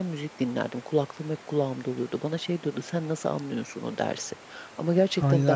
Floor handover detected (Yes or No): Yes